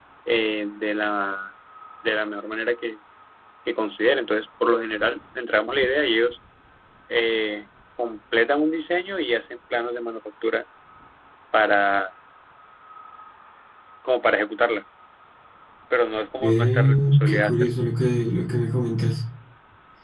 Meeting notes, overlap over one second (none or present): present